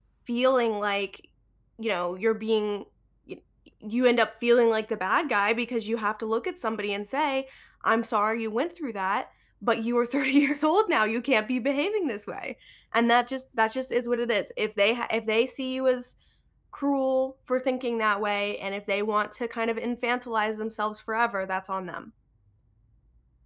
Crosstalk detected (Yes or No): No